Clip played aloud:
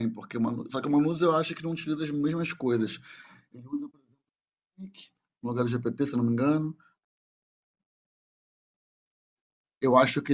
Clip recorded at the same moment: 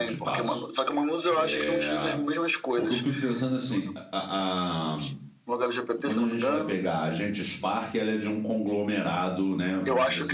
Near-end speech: present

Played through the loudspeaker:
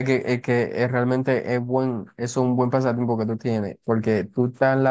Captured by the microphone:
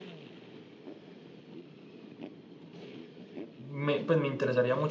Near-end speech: present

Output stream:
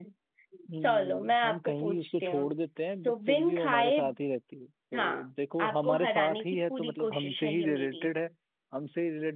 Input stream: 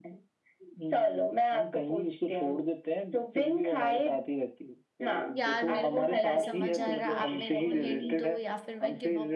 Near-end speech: present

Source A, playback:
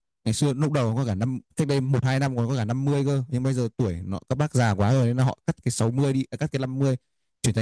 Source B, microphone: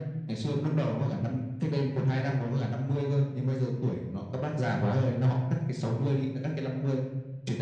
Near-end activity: none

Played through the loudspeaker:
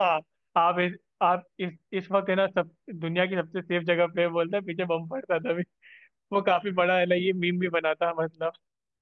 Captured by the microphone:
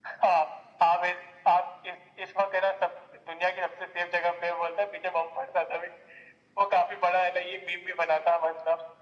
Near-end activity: none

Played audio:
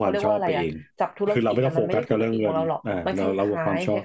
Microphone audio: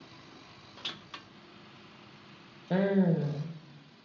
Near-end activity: present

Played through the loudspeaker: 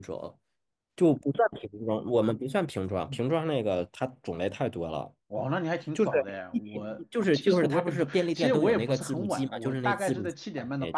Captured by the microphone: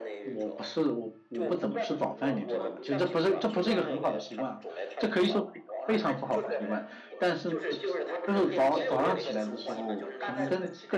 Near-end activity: present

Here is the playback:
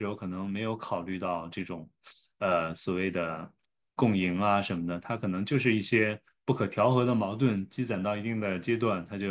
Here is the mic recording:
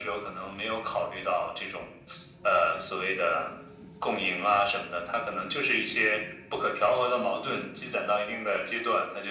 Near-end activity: none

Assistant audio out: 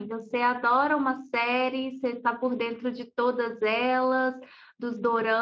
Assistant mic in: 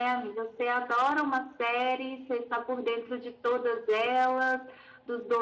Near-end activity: none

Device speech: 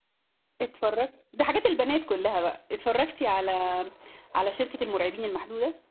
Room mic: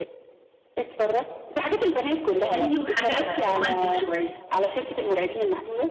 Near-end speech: present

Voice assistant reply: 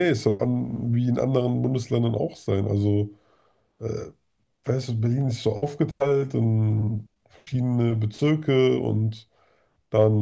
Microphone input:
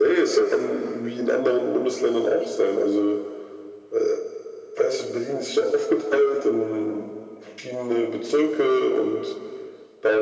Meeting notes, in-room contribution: none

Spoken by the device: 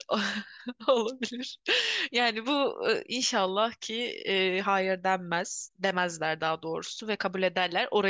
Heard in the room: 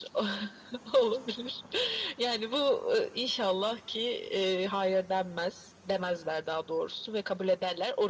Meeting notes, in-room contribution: none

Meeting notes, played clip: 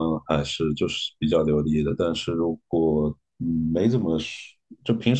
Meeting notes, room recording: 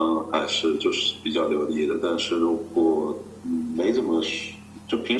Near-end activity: none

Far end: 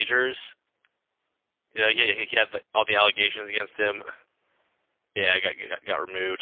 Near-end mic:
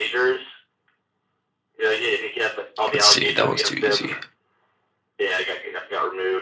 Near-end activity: present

